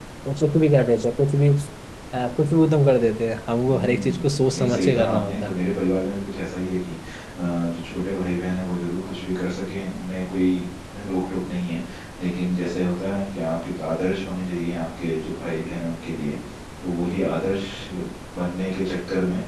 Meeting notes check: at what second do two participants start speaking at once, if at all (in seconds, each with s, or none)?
3.6 s